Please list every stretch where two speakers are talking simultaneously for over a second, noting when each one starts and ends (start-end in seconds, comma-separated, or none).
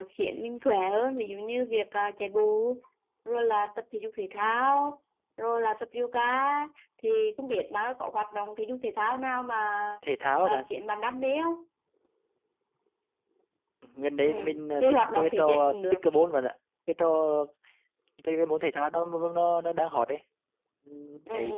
14.2-16.0